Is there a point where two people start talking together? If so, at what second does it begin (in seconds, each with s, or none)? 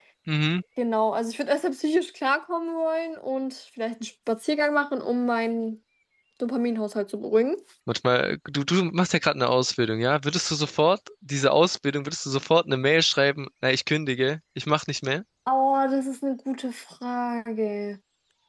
none